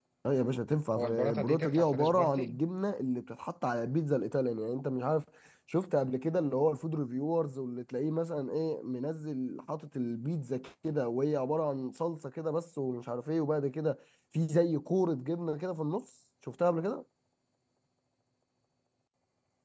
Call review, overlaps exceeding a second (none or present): present